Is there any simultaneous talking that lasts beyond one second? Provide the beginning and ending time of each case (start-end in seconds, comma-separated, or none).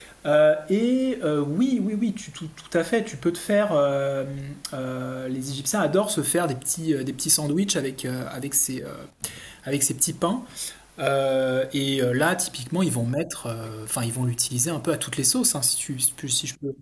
none